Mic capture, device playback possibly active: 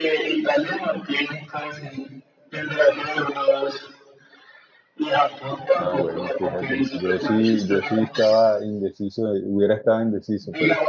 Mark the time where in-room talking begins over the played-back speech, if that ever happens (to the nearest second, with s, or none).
6 s